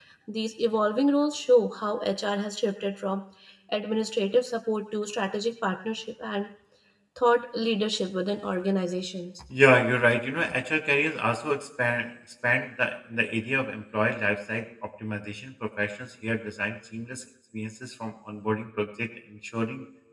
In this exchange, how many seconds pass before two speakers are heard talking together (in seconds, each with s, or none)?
none